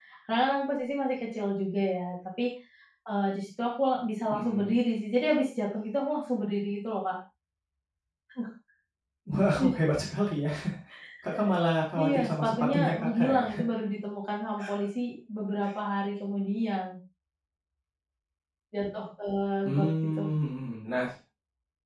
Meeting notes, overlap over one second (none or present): present